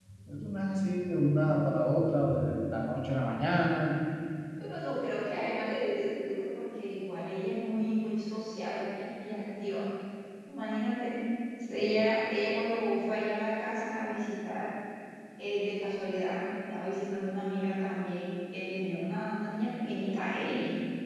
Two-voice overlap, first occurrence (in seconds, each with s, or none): none